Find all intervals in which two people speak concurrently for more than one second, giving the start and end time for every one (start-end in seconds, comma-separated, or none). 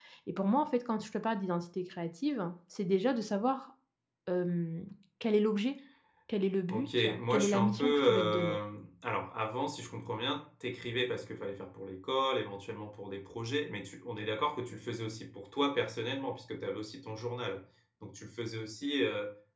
6.7-8.6